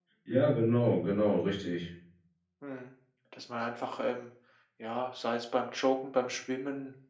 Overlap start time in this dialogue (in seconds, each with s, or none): none